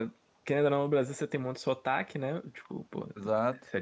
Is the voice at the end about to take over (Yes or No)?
No